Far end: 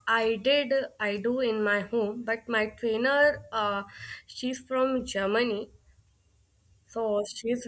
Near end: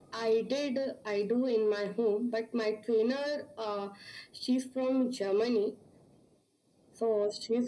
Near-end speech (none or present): none